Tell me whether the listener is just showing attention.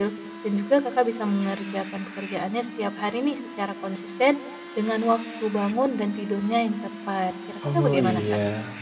No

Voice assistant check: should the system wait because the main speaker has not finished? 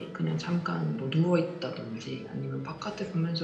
Yes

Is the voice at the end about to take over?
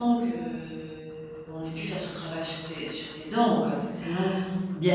Yes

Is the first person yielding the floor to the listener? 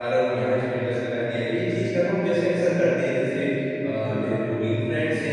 No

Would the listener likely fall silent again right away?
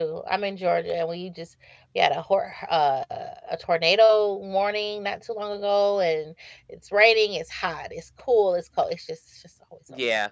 No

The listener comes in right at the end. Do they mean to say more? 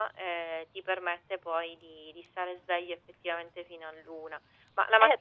Yes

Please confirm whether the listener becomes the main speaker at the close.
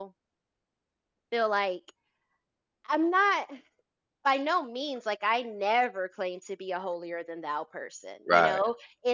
No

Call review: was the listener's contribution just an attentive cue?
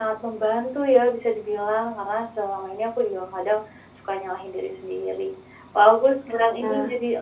Yes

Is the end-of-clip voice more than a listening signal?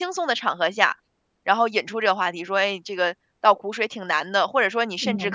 No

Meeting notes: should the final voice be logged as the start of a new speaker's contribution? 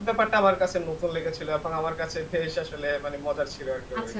Yes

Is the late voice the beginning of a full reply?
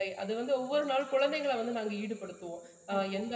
No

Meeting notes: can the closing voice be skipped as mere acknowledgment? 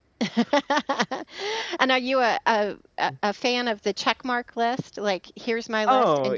No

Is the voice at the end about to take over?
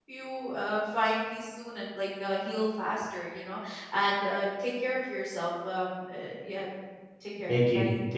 Yes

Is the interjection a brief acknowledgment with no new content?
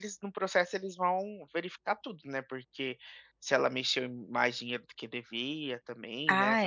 No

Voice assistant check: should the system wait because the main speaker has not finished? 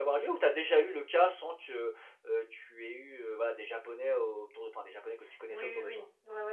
No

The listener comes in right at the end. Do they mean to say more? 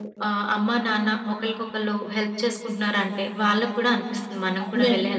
Yes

